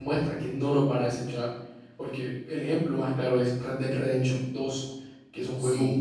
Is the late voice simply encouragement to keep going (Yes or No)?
Yes